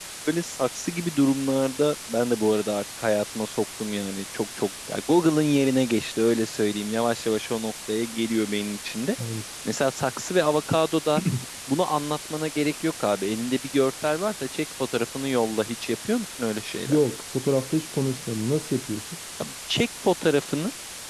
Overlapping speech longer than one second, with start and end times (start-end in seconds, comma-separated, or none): none